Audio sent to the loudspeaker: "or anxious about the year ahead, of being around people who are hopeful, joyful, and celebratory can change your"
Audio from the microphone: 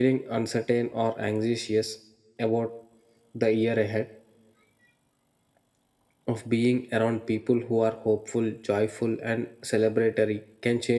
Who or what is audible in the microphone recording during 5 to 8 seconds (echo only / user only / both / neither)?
echo only